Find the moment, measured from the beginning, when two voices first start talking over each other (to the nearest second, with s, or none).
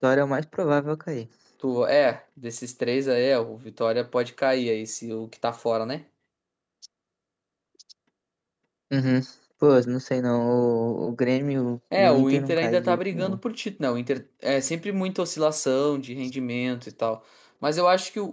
12 s